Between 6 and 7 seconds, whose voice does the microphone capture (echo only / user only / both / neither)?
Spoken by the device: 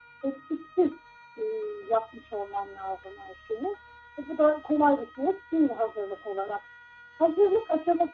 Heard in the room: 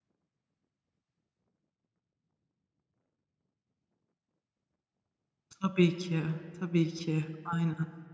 user only